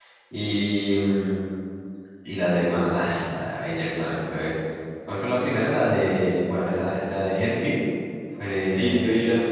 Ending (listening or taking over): taking over